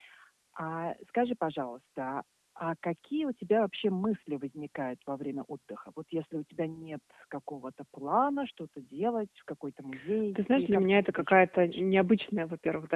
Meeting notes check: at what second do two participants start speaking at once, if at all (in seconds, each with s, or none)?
10.3 s